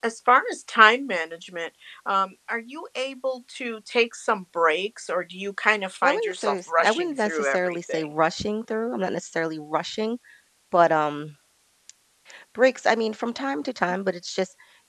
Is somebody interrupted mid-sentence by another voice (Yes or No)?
Yes